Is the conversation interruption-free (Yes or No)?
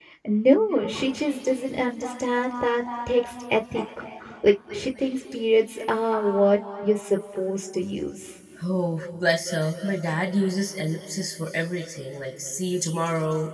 Yes